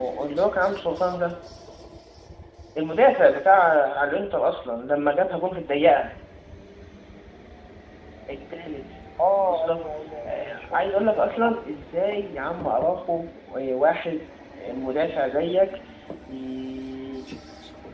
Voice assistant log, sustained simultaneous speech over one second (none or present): present